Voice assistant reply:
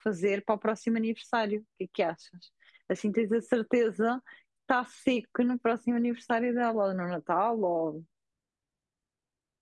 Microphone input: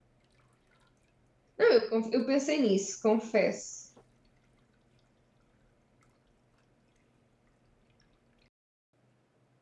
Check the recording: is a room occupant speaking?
Yes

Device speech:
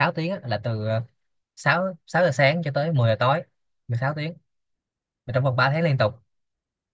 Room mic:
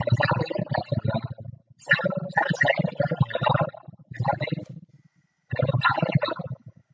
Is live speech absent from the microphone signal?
Yes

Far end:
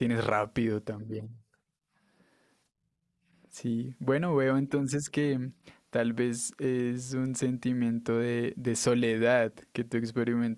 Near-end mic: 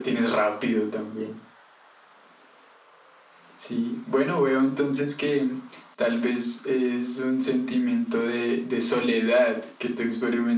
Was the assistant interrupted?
No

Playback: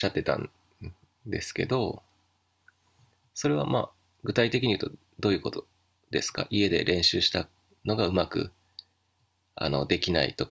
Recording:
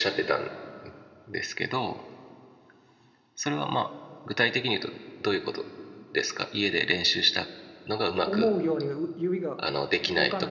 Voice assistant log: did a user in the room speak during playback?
Yes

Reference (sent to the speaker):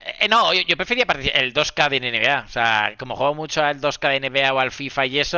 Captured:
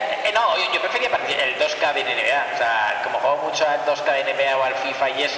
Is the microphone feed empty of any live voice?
Yes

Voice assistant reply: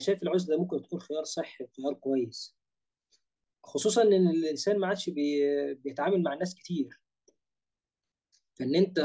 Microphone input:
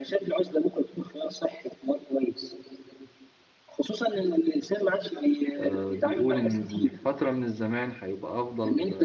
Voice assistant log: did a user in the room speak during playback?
Yes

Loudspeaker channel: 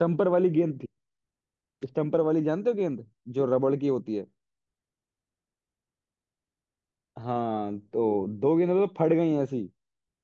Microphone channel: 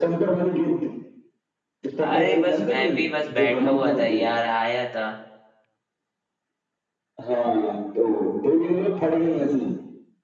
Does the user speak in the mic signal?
Yes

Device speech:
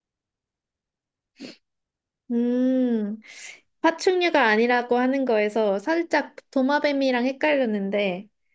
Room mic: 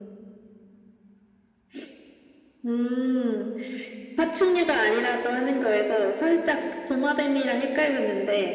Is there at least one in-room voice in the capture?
No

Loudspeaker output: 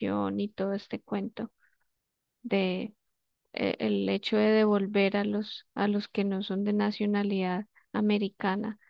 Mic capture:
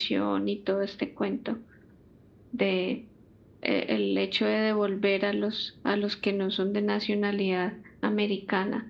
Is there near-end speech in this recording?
No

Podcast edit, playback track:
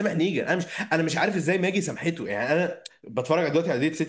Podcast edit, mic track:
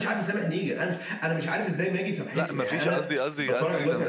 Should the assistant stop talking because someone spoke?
Yes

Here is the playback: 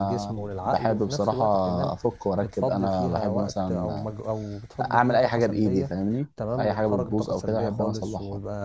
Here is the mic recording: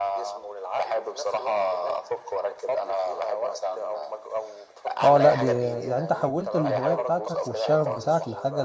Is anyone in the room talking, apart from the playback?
Yes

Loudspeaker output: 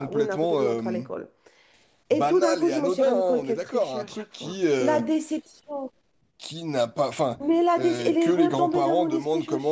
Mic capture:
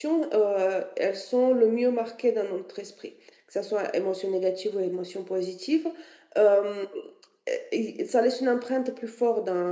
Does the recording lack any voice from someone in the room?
No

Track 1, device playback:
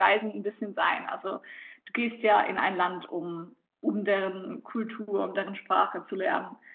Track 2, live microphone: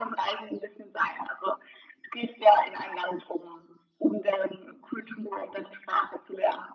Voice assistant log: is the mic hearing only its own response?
Yes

